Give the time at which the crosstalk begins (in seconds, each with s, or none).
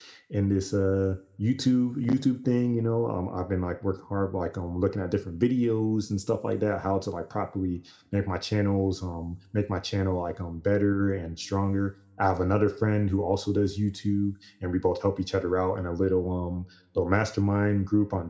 none